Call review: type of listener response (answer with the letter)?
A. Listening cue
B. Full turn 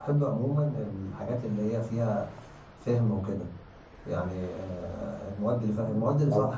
A